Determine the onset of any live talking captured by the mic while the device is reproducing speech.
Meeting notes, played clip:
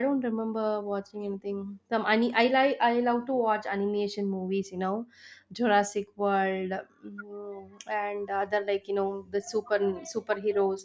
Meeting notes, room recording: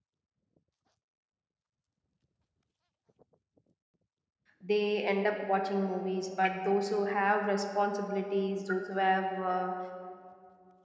4.6 s

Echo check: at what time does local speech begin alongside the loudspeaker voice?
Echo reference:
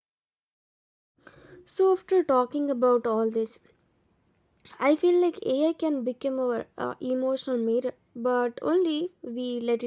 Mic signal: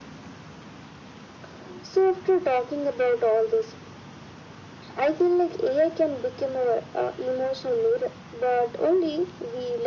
none

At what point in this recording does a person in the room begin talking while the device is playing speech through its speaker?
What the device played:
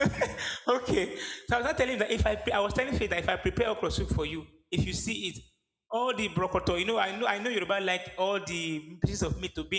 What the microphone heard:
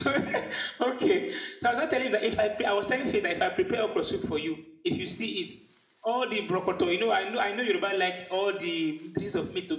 none

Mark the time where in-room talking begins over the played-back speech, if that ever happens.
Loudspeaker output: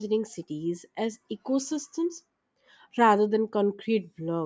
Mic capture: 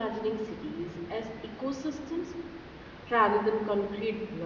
none

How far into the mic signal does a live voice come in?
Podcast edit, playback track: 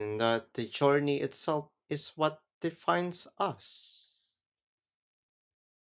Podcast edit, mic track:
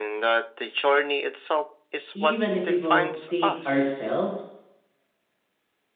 2.1 s

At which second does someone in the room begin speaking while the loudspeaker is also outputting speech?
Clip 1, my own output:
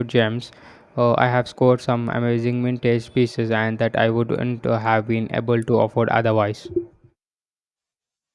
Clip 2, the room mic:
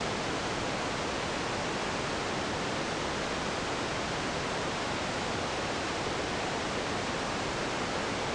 none

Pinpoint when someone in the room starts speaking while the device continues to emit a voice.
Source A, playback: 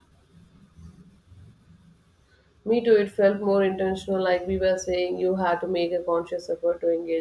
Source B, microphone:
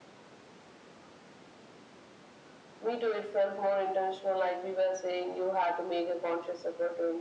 none

